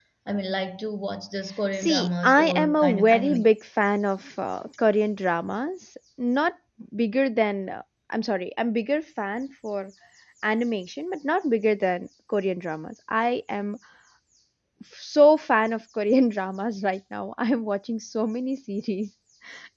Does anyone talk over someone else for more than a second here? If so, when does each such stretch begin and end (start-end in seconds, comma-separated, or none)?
1.7-3.5